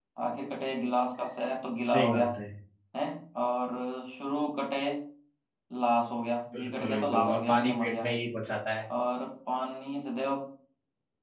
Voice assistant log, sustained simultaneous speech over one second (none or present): present